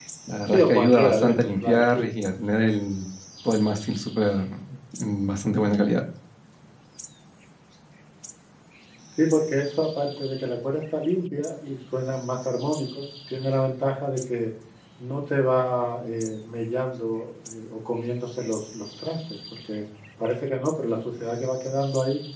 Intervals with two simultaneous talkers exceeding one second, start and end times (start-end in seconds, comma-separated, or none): 0.5-2.1